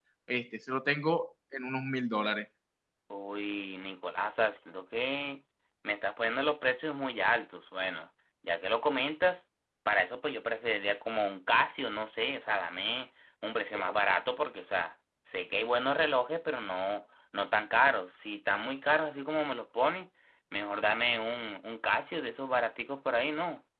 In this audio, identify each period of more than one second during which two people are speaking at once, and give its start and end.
none

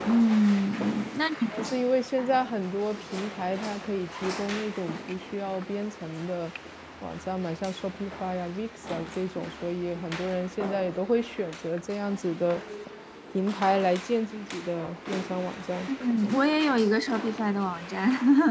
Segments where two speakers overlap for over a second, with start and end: none

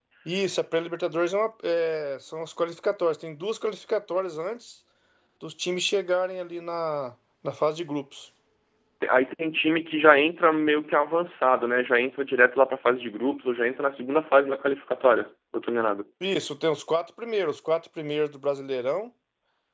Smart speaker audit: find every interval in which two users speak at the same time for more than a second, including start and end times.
none

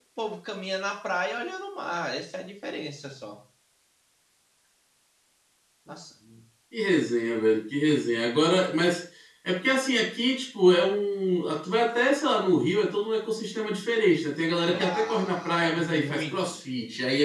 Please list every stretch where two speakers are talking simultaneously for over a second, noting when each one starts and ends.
14.7-16.6

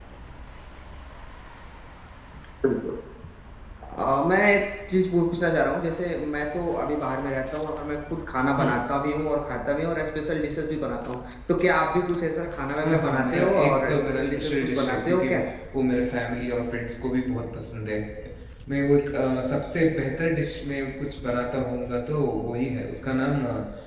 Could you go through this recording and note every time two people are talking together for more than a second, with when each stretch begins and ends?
12.8-15.4

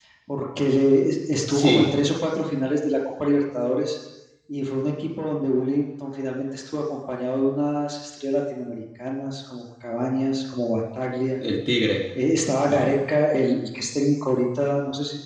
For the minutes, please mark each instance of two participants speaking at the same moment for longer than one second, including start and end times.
none

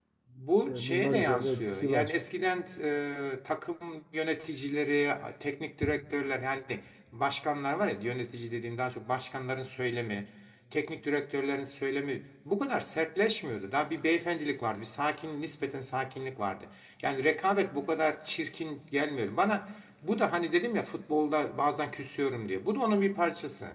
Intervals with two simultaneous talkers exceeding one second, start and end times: 0.7-2.1

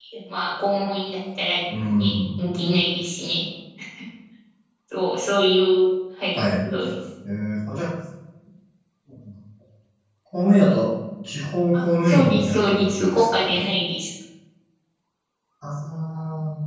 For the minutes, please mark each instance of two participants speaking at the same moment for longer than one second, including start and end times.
11.7-13.7

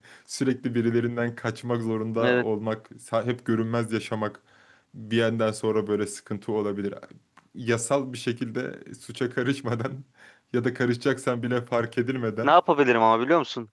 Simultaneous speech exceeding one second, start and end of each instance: none

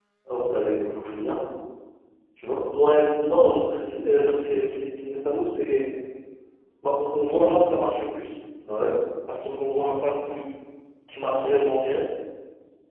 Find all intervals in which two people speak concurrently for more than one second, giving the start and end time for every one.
none

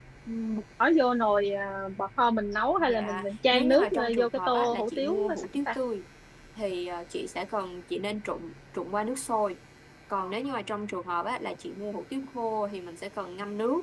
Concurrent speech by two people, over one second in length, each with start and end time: 2.8-5.8

